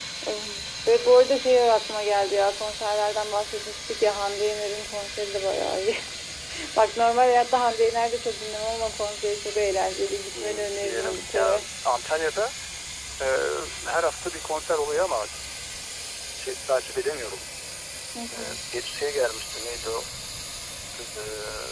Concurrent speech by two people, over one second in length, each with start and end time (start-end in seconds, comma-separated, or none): 10.3-11.6